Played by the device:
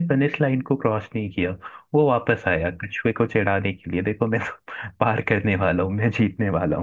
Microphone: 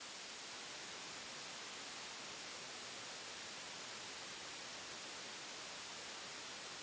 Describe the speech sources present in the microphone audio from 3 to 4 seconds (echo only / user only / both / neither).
neither